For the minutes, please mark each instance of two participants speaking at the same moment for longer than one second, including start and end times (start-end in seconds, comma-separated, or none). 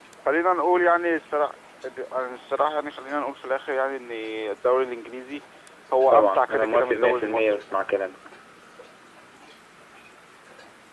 6.1-7.6